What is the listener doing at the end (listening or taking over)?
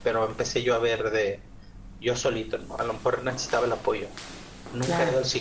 listening